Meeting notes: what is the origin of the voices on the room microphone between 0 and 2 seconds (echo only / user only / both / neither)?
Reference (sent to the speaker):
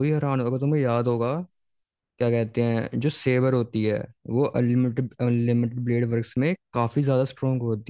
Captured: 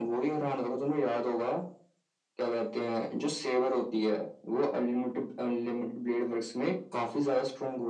echo only